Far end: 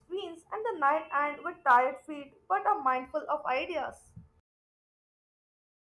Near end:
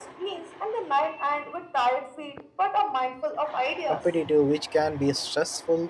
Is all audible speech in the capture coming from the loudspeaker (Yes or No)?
No